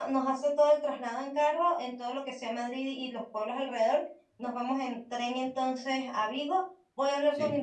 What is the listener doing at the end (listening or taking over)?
listening